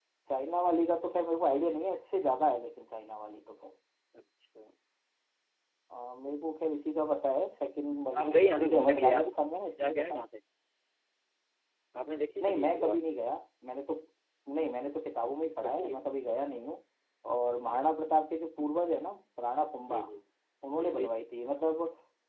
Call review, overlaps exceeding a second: present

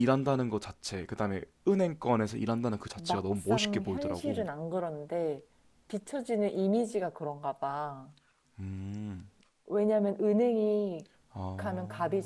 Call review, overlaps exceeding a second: present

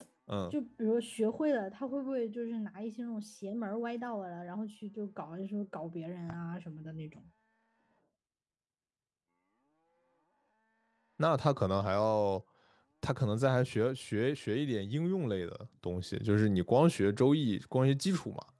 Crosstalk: none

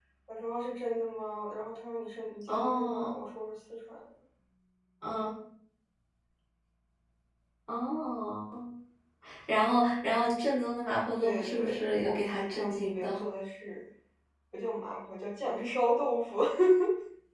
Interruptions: present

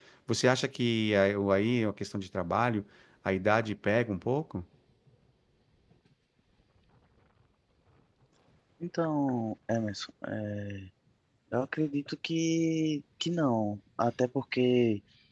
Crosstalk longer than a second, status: none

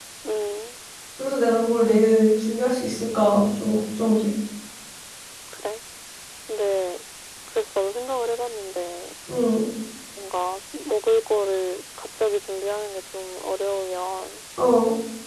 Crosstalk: none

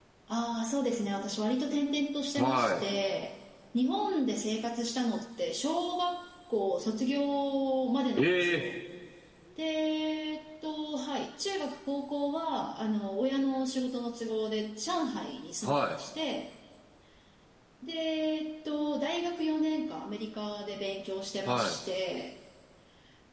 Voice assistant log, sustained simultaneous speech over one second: none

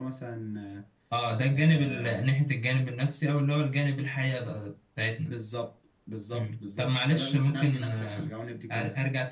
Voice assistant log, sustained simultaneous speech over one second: present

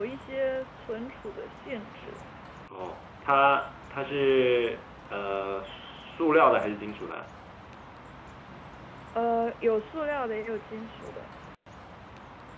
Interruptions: none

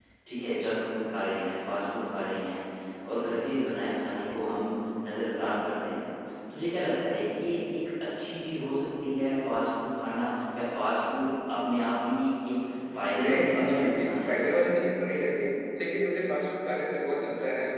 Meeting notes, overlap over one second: present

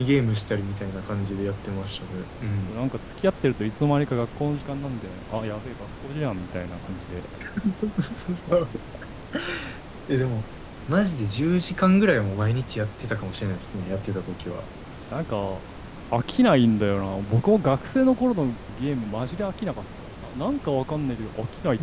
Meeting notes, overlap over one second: none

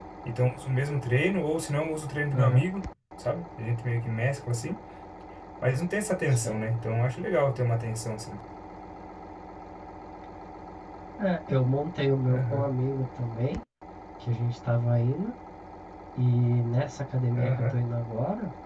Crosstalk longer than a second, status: none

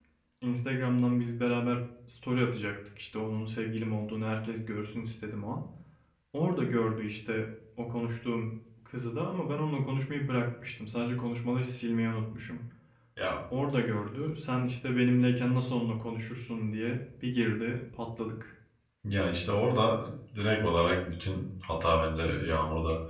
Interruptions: none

